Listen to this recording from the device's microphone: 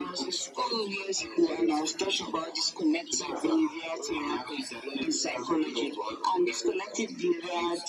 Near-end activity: none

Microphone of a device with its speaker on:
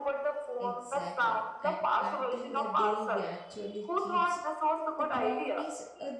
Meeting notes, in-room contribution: present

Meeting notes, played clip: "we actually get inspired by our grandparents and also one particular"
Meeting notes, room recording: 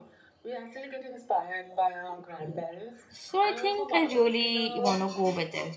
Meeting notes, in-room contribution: present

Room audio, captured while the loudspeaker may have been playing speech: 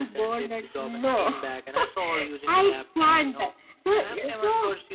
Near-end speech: none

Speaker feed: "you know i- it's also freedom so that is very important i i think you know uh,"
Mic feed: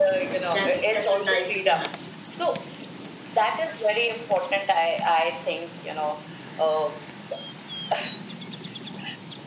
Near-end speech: present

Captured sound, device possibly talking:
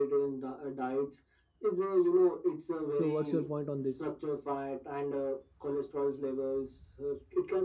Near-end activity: present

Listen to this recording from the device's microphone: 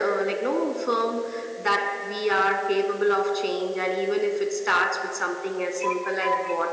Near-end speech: none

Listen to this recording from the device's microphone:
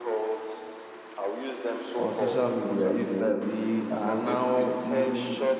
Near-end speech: present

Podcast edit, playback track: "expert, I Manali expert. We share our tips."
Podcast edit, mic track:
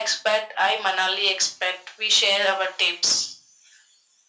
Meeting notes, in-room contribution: none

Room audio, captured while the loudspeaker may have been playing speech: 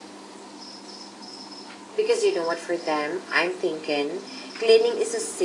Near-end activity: present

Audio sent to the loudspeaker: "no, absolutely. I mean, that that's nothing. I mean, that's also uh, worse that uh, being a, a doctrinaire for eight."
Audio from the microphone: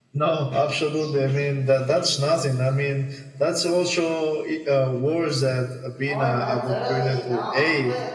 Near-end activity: present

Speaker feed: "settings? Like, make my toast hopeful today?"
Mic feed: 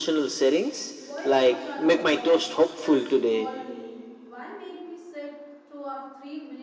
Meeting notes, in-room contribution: present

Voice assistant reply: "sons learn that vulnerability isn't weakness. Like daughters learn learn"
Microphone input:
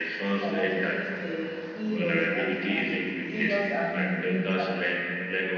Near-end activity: present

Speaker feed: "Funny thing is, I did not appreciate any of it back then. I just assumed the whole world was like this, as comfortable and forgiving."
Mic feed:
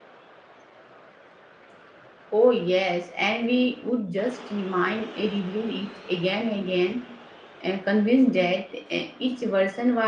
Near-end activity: present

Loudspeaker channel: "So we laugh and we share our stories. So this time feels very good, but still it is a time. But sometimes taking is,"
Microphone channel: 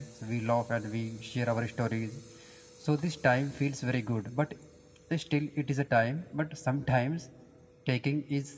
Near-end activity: none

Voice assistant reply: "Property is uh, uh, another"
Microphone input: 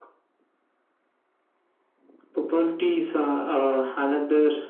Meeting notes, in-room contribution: none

